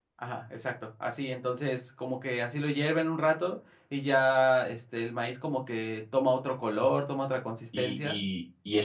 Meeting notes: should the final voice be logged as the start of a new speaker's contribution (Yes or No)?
Yes